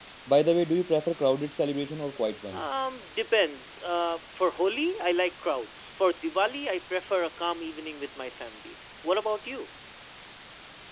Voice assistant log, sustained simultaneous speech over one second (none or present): none